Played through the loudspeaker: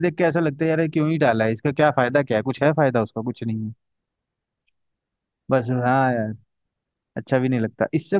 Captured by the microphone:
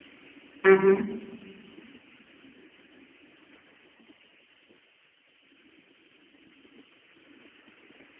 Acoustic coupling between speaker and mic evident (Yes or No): No